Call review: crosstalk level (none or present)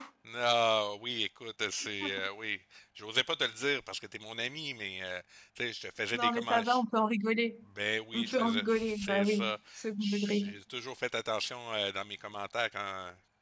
present